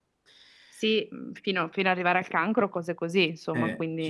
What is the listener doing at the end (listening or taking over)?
taking over